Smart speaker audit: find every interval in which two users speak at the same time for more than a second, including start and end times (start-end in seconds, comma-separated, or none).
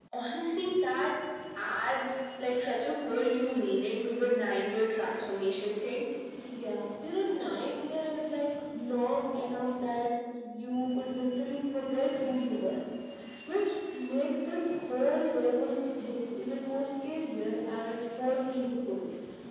none